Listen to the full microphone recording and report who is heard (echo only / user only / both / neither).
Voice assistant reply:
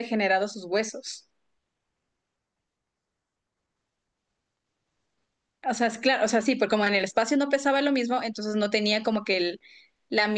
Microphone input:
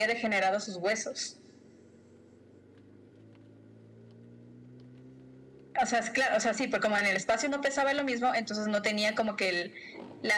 echo only